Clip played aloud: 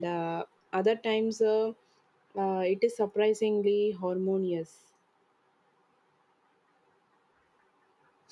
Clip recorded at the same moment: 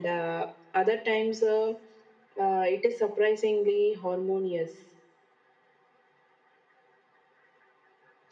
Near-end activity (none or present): none